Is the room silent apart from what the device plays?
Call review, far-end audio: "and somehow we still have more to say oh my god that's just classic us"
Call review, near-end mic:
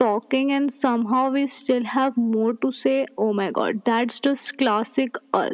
Yes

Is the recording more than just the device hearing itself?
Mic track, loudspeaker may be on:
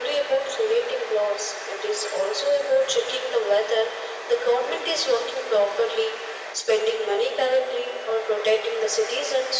No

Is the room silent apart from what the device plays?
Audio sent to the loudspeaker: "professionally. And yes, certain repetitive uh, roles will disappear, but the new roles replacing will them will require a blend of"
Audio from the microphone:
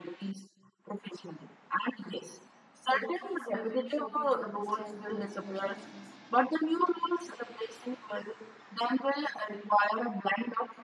No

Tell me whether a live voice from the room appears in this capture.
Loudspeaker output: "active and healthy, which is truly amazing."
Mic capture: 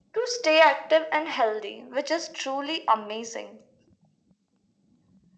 No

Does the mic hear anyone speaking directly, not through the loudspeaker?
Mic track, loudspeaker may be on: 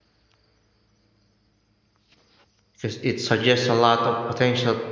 Yes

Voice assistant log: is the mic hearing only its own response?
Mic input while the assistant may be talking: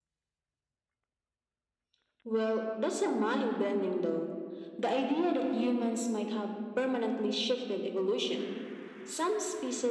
Yes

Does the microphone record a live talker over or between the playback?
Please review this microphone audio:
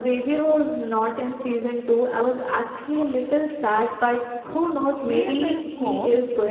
Yes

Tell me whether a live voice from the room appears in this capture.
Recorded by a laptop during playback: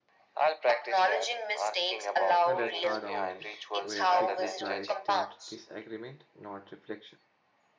Yes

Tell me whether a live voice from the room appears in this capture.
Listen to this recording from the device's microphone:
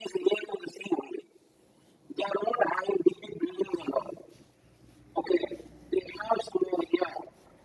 No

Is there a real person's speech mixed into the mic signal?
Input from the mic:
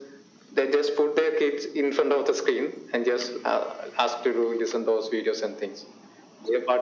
No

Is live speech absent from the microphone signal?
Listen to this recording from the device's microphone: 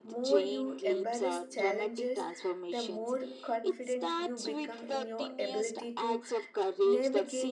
No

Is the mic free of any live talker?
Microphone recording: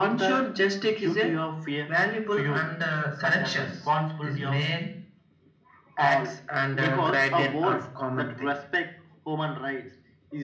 Yes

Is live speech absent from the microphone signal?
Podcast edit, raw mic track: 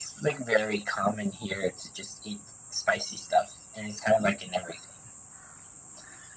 Yes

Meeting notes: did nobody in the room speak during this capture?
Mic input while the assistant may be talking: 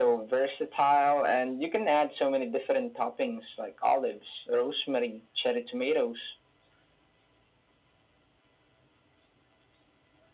Yes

